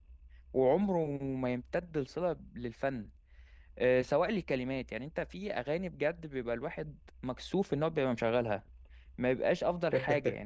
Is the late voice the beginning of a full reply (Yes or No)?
No